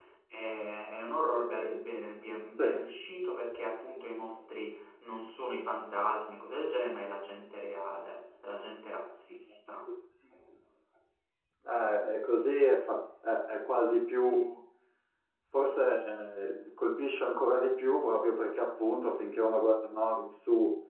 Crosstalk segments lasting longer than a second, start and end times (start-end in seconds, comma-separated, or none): none